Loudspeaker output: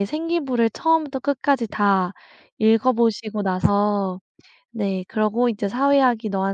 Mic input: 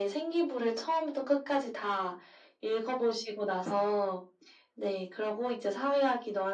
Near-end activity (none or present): none